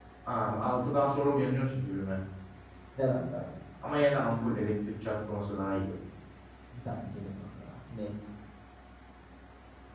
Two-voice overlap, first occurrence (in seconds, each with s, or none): none